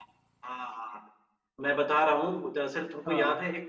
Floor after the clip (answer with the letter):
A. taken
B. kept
B